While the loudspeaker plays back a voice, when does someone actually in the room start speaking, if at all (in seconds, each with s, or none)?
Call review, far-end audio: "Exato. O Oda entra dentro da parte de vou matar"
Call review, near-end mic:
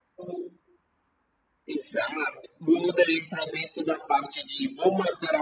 none